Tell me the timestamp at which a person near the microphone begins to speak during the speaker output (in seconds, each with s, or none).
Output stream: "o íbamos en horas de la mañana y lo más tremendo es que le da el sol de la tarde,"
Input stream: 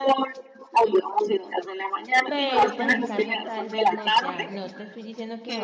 2.3 s